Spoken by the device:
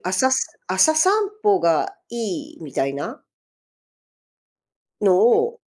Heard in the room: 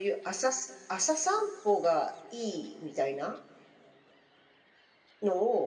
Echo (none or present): present